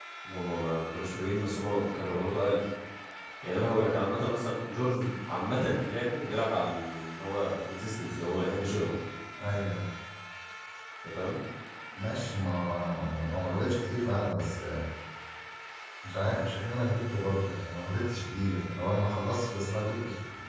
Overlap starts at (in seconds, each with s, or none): none